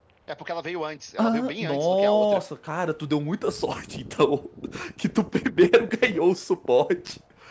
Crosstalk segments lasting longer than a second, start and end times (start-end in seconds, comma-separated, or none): 1.2-2.4